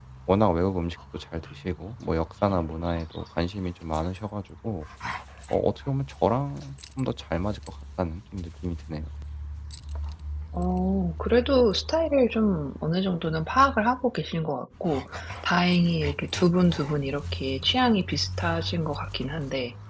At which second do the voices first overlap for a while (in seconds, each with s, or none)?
none